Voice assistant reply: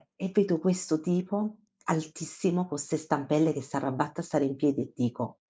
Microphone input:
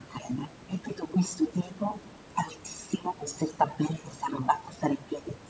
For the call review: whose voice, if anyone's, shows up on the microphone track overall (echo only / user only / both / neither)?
echo only